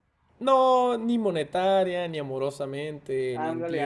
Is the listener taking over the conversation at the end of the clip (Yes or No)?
Yes